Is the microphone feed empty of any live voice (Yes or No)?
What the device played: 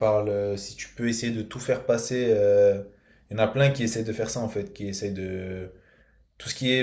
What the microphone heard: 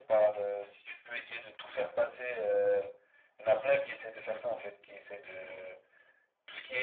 Yes